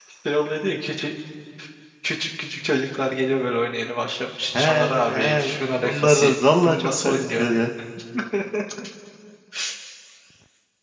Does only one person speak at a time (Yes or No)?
No